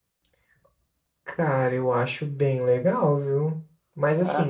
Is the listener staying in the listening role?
Yes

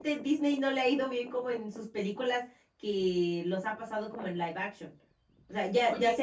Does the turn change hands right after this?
No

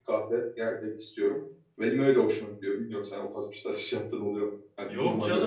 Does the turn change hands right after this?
Yes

